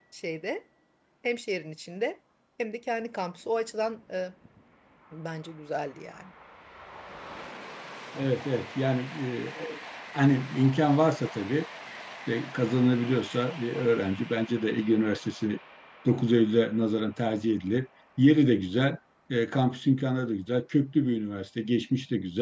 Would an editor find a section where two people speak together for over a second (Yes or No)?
No